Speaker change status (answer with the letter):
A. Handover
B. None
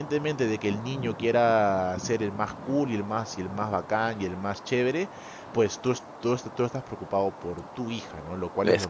B